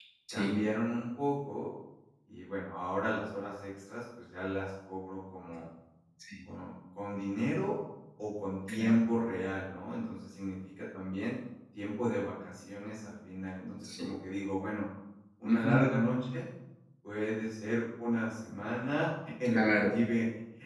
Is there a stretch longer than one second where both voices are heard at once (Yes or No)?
No